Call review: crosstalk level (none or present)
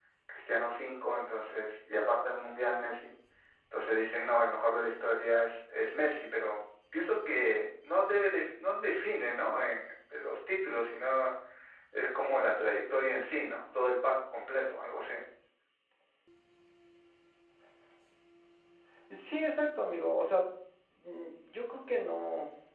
none